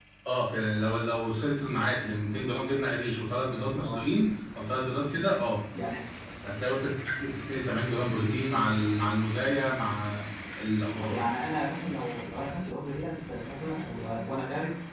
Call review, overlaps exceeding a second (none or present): none